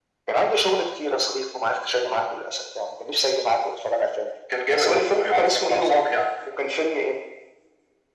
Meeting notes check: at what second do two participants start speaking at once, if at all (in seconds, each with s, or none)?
4.7 s